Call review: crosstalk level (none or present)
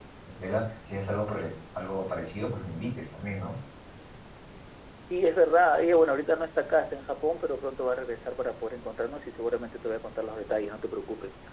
none